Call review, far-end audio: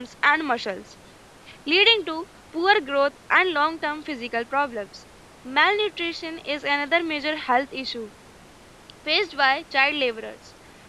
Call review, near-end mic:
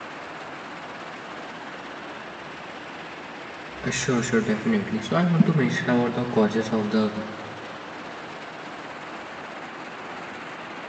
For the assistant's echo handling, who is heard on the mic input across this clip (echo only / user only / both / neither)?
user only